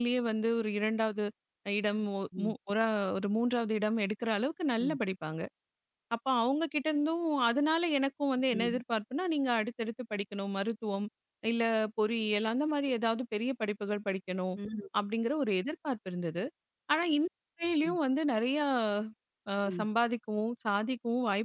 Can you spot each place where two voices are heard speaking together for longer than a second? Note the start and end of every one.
none

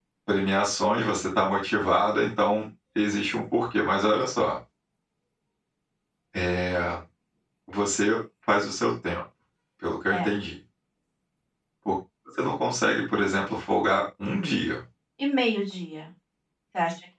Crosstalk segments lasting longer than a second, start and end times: none

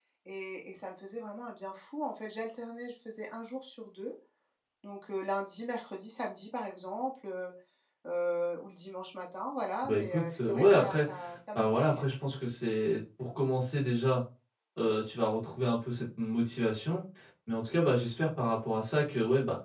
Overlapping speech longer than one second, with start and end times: 9.8-11.1

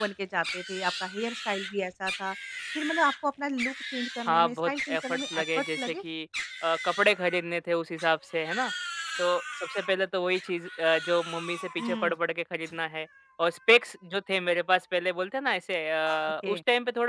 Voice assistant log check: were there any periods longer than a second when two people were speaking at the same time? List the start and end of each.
4.3-5.8

